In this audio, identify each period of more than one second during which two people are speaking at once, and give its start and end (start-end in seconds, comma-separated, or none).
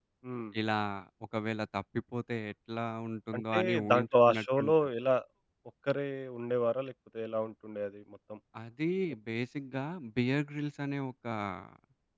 3.4-4.7